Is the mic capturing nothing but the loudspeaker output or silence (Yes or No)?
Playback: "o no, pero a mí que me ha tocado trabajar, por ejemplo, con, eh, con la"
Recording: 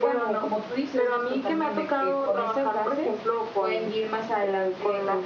No